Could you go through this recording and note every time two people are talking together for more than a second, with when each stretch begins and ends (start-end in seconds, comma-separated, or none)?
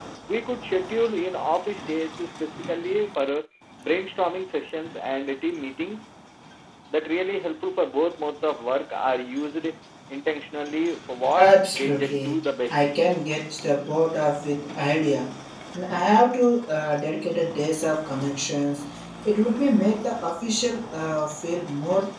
11.3-12.8